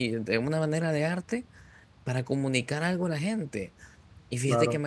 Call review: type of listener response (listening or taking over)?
listening